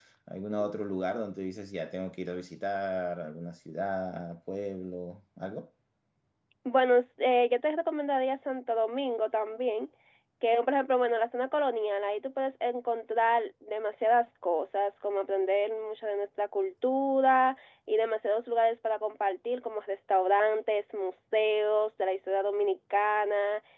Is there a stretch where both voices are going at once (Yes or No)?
No